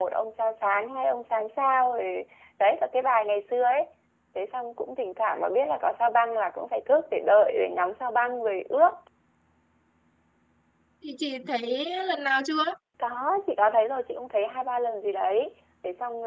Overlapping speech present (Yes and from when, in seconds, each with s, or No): No